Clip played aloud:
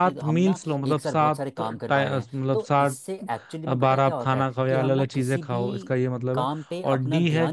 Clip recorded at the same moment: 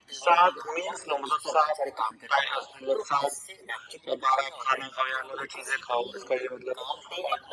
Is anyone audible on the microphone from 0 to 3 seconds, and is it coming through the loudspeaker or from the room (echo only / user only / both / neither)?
echo only